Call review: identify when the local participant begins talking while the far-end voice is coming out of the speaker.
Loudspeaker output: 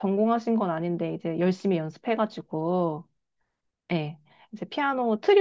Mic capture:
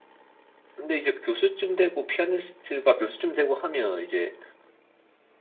0.8 s

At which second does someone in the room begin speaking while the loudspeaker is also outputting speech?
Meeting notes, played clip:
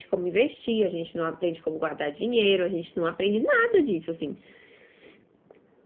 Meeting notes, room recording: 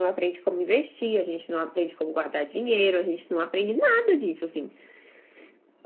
none

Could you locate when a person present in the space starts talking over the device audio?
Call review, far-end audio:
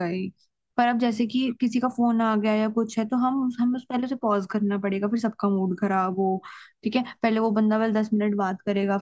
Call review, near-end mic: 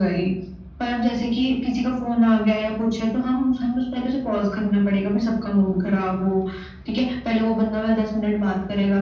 none

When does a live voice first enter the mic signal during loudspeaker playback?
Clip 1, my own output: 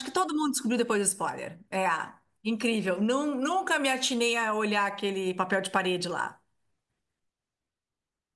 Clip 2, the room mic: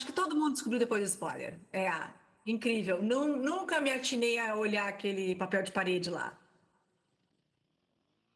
none

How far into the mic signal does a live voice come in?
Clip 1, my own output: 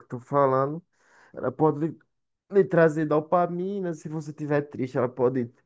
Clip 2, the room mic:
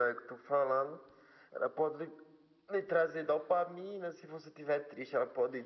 none

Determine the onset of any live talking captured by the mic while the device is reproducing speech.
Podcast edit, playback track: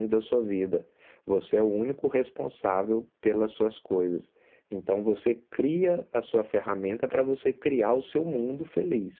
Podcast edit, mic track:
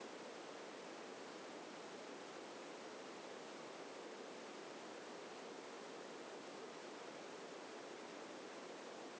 none

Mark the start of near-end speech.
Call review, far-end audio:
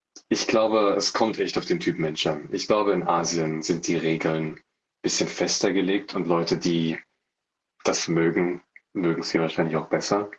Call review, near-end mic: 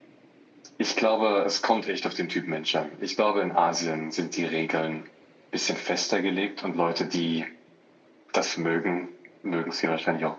none

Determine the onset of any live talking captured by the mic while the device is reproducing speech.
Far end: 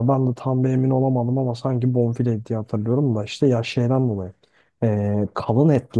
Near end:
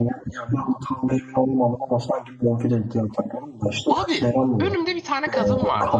3.9 s

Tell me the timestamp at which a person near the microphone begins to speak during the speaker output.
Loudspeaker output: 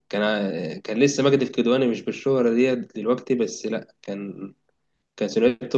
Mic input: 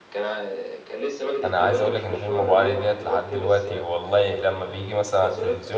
1.4 s

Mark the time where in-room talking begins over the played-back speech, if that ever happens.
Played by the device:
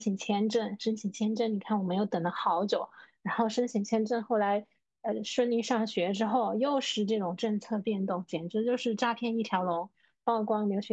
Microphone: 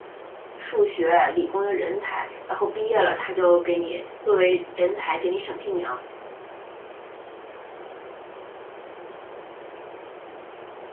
0.6 s

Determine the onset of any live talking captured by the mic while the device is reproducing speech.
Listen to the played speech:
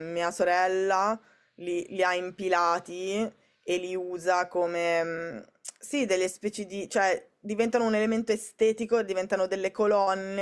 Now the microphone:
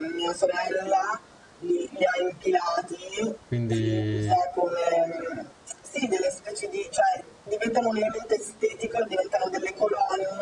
3.5 s

